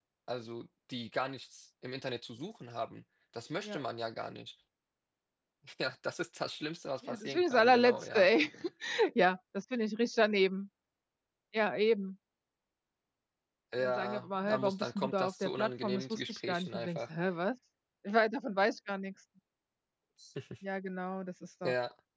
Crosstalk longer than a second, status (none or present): present